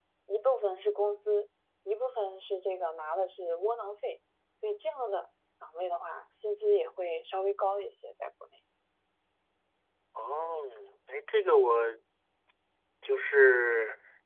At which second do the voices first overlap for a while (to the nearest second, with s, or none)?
none